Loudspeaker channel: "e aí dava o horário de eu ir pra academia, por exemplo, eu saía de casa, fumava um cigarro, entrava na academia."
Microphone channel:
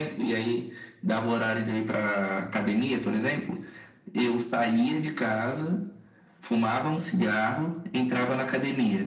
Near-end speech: none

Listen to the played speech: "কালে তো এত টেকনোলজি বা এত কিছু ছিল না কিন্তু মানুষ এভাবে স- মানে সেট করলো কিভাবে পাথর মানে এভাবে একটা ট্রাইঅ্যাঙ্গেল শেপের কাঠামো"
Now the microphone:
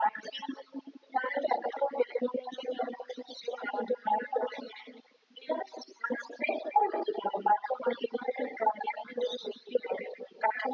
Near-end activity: none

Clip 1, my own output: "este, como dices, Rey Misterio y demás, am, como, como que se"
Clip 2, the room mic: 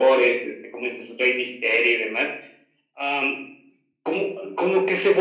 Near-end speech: none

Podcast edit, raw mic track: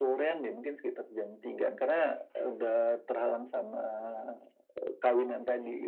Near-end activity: none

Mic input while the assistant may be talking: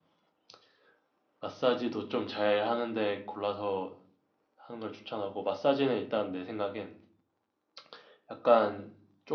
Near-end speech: none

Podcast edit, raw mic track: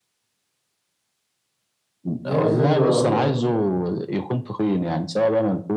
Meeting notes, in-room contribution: present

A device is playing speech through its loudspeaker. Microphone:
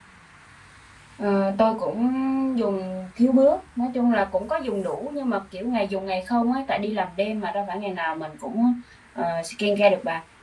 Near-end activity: present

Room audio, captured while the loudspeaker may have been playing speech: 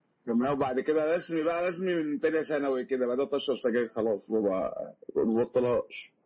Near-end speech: none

